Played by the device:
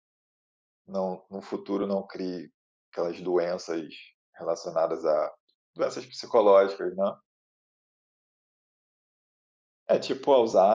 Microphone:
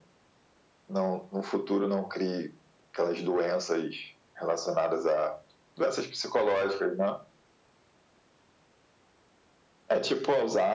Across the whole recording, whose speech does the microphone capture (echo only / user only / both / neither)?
echo only